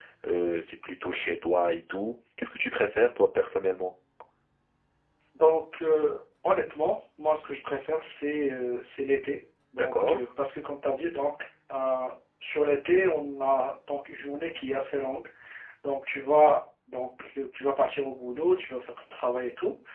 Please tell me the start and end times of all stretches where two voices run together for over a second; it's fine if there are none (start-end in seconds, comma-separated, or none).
none